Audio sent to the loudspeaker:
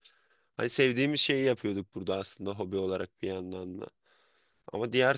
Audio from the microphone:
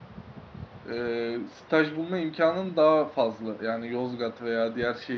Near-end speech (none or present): present